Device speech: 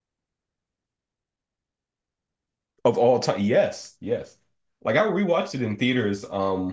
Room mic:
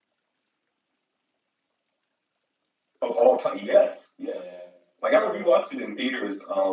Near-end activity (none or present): present